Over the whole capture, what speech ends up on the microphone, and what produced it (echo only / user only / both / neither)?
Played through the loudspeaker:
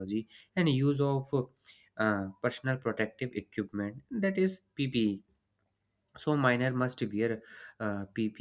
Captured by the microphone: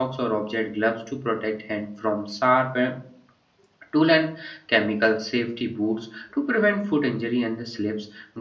user only